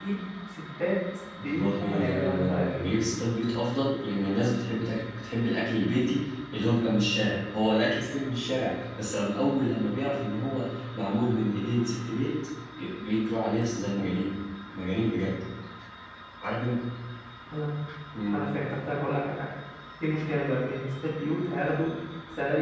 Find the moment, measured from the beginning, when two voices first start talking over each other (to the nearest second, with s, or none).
1 s